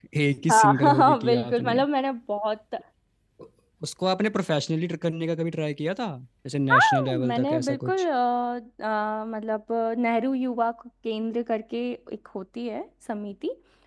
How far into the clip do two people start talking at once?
0.5 s

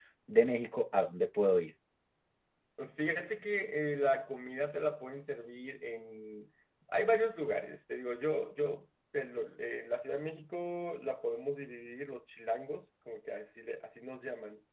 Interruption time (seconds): none

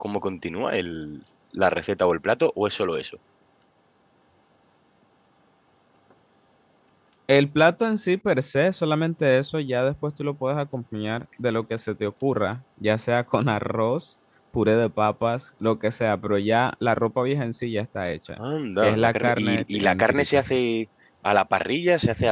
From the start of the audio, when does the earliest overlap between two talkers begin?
18.8 s

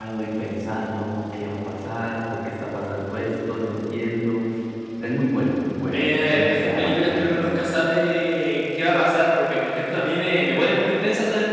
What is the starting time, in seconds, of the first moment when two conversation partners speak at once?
5.9 s

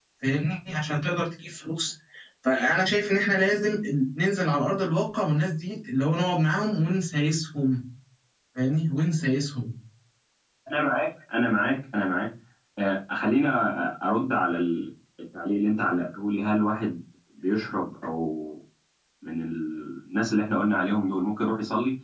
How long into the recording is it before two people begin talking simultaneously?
none

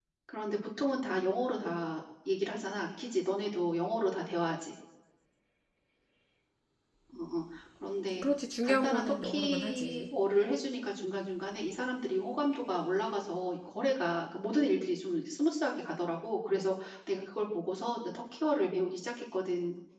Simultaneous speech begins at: 8.6 s

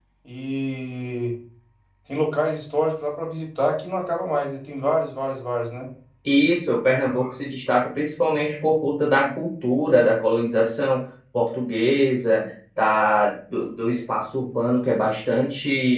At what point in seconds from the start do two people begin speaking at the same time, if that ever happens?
none

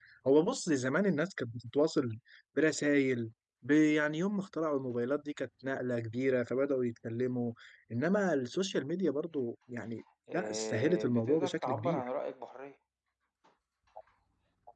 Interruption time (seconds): 10.3 s

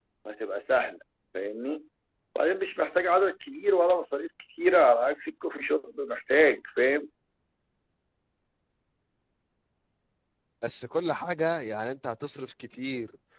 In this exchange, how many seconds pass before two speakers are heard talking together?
none

